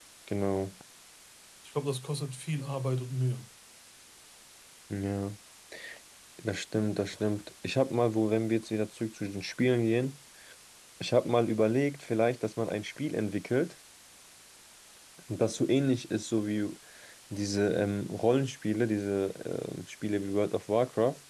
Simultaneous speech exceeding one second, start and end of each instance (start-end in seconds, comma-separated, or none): none